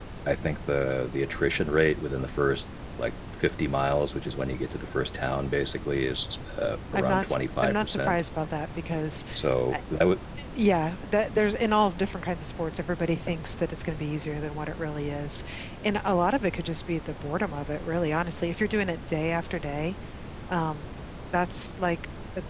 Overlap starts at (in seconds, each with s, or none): 6.9 s